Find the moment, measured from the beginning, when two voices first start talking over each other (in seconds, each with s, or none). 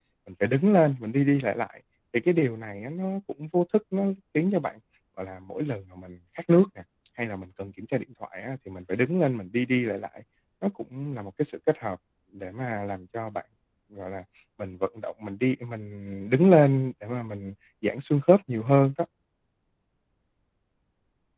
none